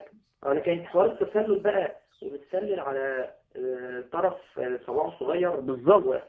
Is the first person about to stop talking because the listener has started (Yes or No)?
Yes